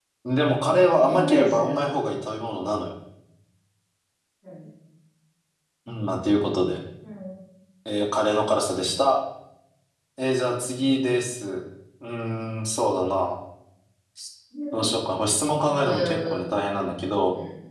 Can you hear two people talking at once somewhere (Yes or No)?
Yes